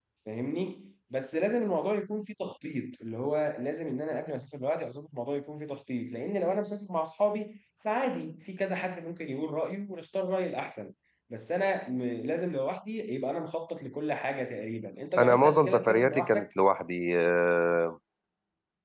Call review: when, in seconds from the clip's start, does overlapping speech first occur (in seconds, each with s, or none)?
15.2 s